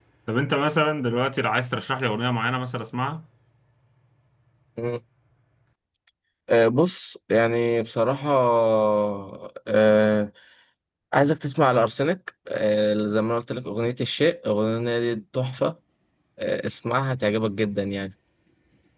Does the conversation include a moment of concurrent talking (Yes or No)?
No